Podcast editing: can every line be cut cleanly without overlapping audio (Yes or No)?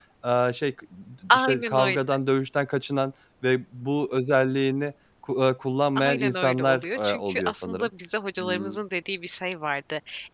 No